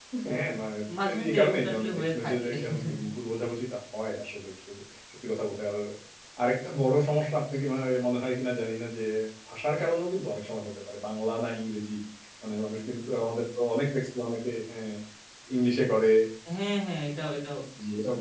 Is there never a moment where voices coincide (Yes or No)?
No